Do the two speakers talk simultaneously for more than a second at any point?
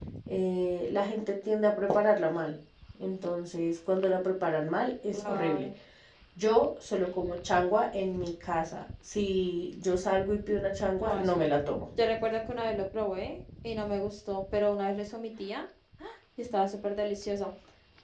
No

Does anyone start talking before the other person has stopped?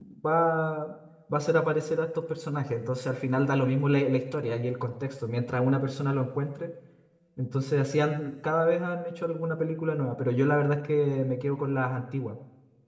No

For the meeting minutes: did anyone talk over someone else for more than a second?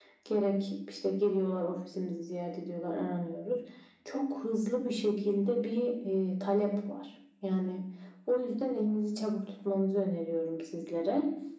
No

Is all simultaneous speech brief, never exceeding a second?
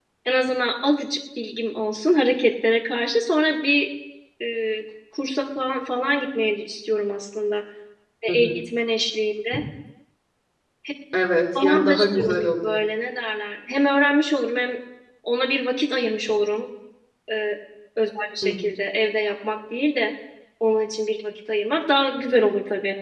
No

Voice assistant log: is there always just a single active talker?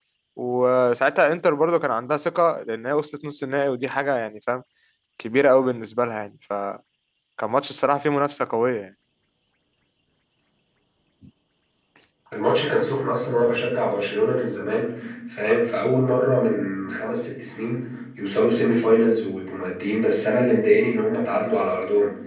Yes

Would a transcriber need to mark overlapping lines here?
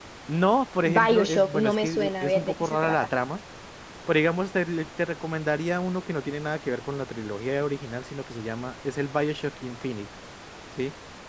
Yes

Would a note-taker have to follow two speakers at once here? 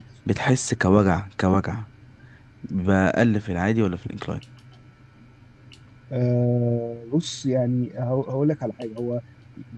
No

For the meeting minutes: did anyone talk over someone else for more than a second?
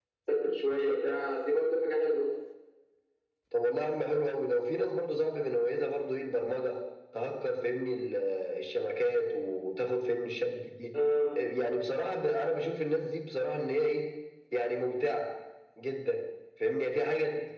No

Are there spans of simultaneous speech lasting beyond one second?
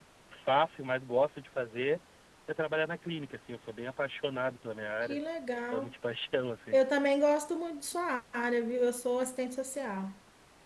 No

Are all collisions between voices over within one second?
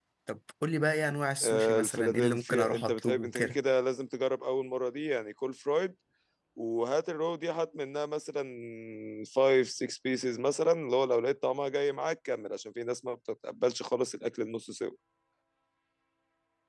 No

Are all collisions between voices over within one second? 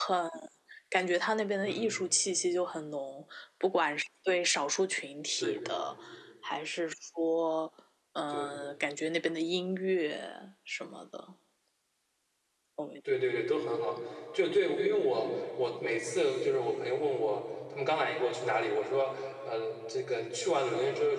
Yes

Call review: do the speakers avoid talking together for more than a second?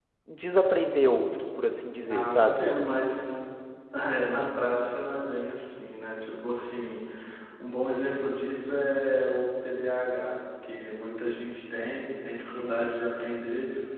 Yes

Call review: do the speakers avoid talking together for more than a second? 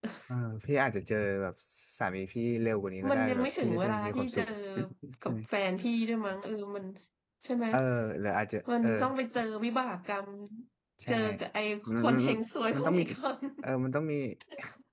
No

